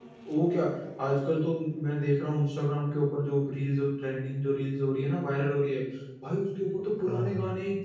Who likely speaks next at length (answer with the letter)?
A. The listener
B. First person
B